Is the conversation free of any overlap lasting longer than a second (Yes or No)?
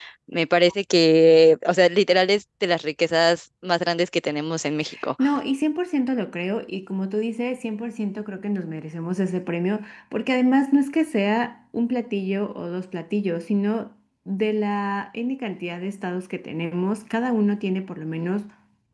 Yes